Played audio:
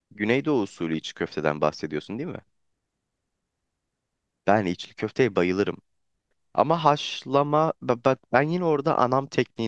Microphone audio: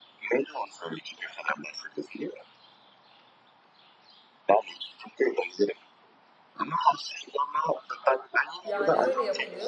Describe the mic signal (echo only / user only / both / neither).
both